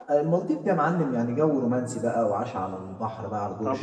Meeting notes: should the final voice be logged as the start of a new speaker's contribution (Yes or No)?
Yes